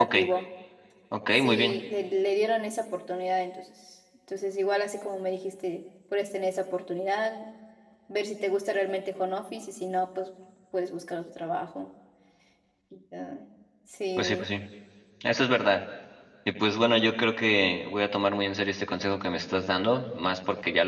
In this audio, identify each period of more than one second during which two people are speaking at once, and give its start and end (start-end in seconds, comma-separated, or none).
none